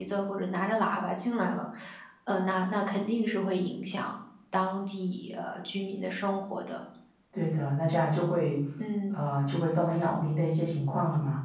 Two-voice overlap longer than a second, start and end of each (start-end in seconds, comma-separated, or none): none